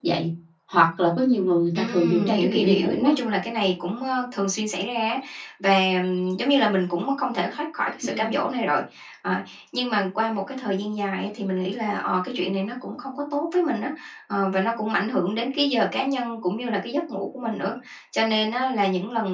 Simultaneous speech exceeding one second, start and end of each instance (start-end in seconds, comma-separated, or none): 1.8-3.1